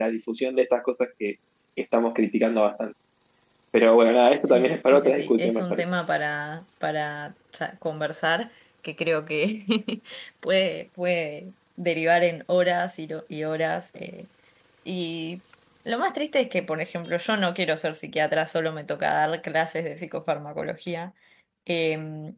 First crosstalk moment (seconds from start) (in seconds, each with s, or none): 4.5 s